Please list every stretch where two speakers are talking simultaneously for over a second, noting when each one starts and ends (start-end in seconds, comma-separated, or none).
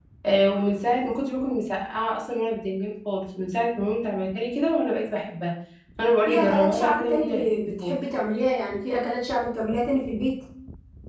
6.3-7.9